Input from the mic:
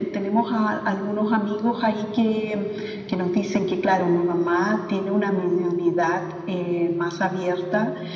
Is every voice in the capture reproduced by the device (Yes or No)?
Yes